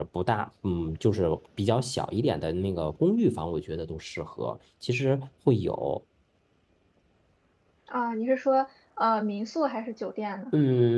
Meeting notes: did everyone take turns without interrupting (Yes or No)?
Yes